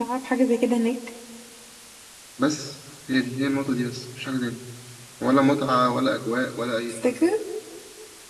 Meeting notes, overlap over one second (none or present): none